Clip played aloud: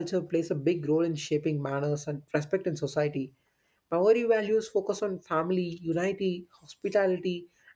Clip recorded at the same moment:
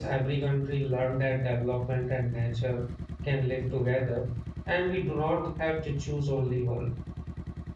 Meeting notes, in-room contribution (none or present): present